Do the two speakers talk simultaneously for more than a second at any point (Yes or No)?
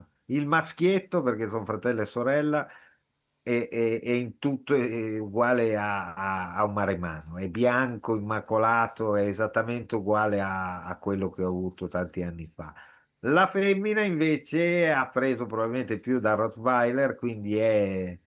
No